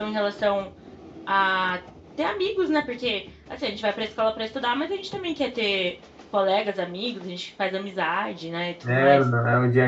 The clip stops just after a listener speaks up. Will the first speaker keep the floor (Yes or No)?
No